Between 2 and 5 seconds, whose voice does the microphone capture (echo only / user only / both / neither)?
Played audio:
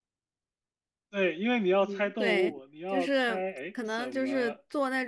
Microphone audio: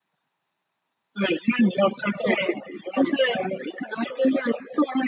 echo only